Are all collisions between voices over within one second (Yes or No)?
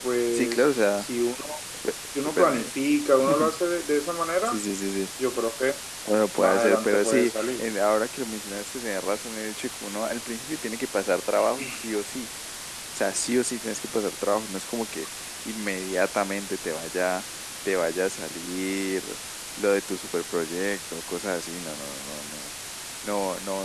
No